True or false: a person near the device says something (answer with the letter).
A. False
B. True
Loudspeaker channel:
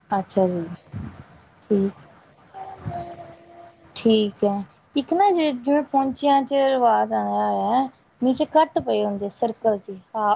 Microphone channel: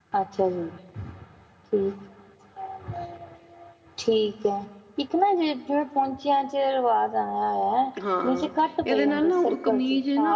B